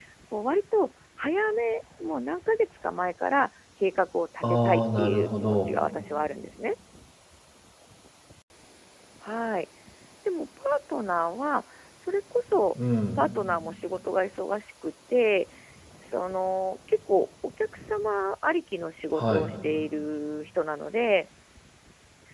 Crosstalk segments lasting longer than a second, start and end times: 4.4-5.7

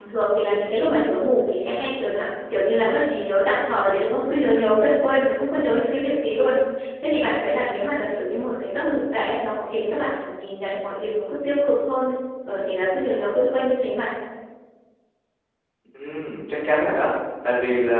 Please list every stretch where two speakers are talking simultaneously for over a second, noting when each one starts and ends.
none

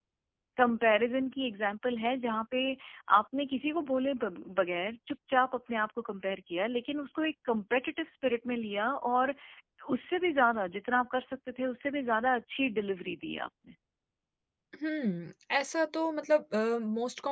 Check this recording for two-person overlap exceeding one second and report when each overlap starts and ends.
none

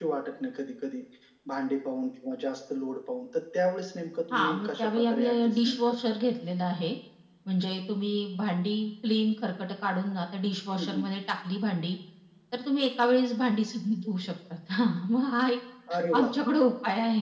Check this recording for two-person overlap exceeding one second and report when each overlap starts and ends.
4.3-6.0

